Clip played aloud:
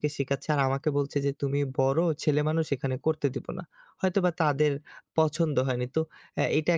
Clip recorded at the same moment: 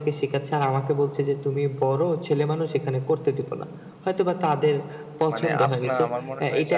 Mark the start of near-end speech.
5.3 s

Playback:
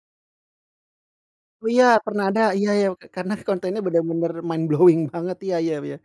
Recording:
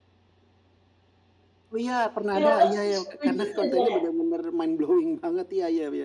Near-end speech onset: 2.3 s

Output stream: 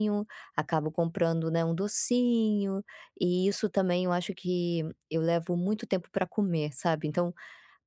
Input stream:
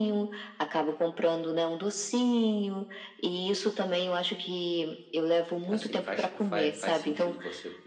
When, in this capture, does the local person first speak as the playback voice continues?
5.7 s

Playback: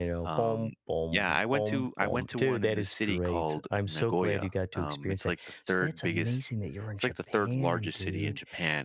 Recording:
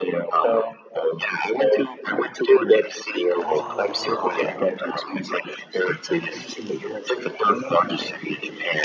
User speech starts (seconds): 3.4 s

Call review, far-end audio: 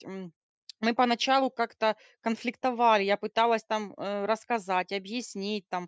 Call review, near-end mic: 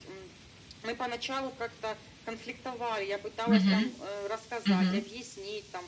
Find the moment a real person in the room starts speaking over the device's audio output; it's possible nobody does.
3.5 s

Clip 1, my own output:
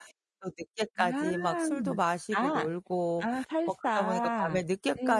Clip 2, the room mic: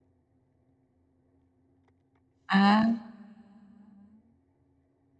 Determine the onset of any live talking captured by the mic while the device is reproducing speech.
2.5 s

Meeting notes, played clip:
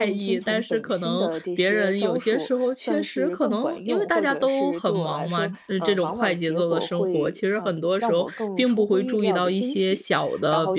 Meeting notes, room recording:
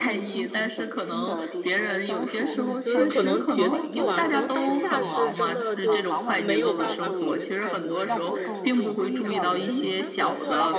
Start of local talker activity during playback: 2.4 s

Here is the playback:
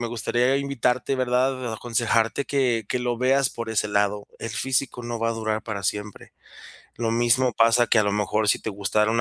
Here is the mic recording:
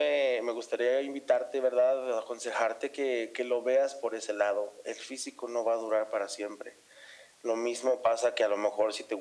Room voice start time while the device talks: none

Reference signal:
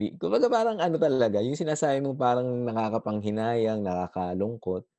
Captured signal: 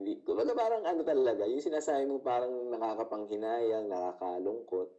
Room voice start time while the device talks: none

